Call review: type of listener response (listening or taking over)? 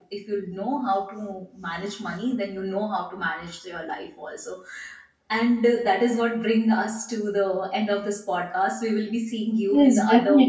taking over